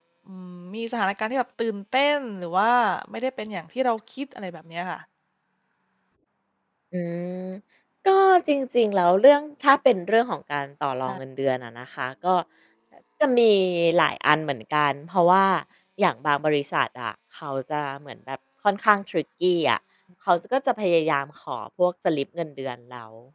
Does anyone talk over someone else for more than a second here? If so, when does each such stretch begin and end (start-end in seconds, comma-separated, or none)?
none